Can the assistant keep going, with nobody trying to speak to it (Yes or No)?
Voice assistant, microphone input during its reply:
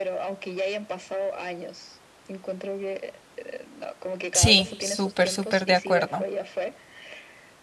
No